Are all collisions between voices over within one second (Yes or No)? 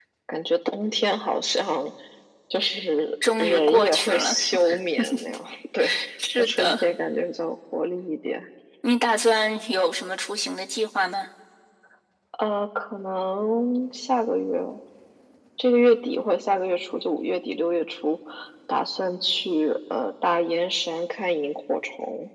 No